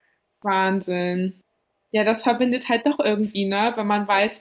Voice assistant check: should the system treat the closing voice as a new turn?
No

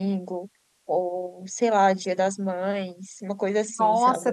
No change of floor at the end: No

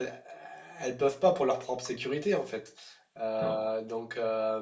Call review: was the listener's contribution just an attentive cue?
Yes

